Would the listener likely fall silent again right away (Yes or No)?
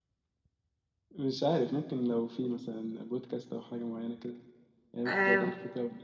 No